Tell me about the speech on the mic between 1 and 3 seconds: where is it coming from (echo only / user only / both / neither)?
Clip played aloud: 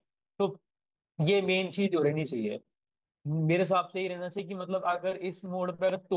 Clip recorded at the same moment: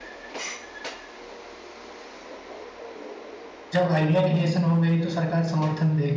neither